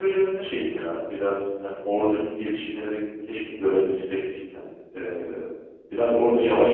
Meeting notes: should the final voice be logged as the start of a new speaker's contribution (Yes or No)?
Yes